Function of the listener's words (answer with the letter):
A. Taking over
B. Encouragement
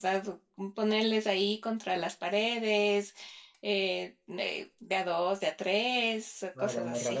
A